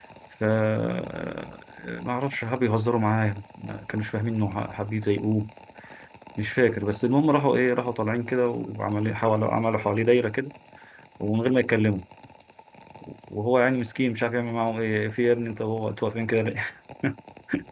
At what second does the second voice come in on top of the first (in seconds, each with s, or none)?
none